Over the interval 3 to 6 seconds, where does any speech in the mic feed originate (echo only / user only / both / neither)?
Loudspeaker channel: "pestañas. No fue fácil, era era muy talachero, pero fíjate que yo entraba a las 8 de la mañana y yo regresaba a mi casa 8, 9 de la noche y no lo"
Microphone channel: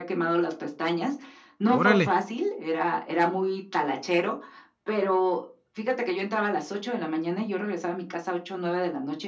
echo only